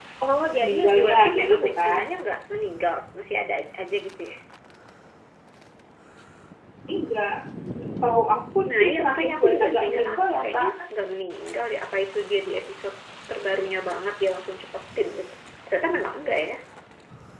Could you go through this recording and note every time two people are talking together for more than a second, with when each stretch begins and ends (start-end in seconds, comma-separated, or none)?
0.6-2.0, 8.7-10.7